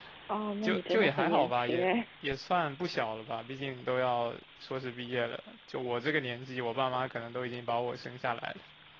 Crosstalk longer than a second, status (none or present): present